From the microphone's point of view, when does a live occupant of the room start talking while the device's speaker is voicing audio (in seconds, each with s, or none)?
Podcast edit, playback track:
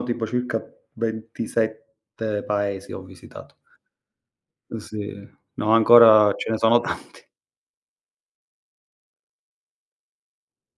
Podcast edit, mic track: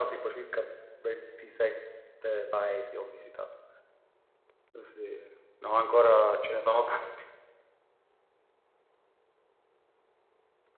none